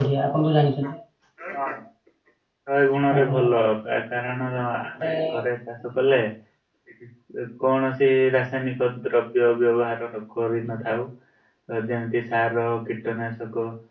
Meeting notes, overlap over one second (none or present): none